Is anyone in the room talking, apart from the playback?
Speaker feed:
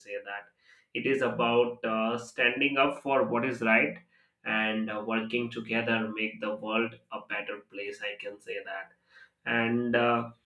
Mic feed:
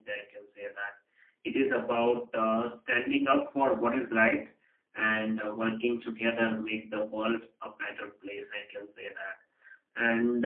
No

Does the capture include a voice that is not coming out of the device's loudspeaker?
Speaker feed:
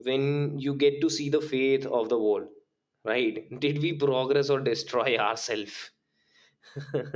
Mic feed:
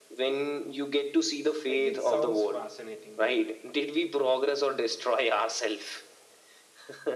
Yes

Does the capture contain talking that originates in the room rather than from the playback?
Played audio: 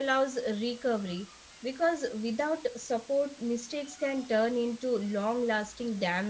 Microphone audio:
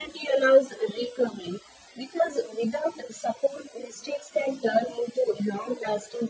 No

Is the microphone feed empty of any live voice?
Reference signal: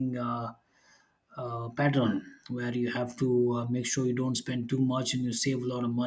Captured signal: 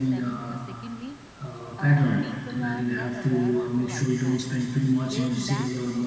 No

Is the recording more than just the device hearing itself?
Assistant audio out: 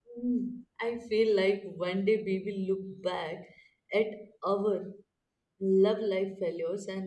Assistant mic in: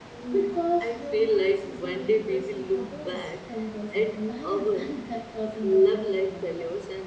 Yes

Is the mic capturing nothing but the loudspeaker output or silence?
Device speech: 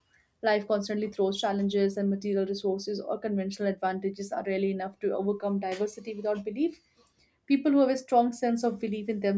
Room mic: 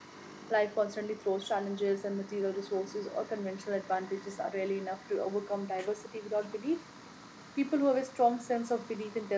Yes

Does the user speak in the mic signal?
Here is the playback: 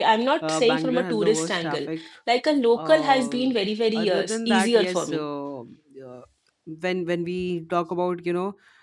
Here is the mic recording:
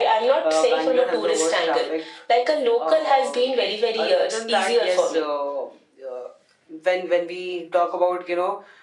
No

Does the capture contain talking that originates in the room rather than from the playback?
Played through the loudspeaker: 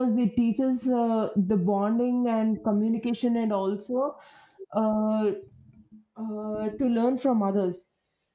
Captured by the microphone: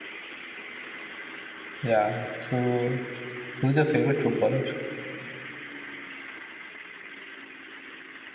Yes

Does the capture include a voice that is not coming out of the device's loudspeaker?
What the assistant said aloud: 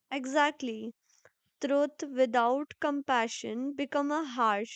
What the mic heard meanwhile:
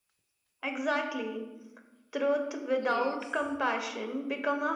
Yes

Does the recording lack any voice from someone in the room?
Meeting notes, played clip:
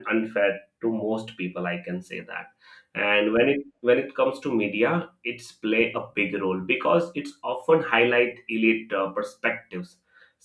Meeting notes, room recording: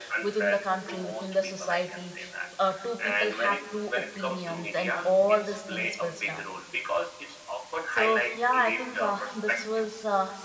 No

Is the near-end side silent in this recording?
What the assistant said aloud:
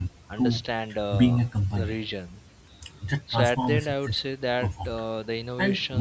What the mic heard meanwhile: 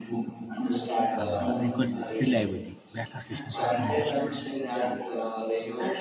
No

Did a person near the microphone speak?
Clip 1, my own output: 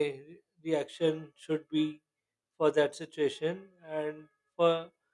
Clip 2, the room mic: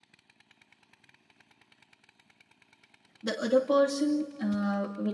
Yes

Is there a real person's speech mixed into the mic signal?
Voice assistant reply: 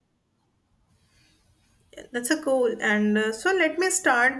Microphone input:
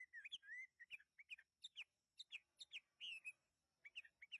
No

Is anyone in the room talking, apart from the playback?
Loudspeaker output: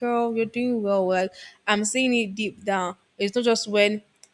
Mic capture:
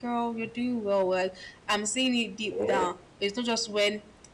Yes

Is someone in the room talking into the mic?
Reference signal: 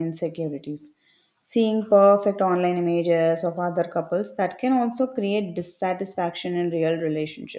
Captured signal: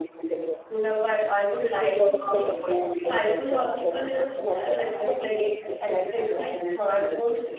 Yes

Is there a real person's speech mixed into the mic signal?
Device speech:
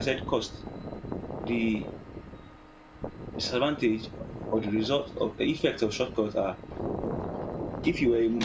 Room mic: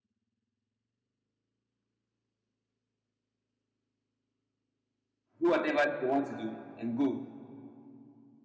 Yes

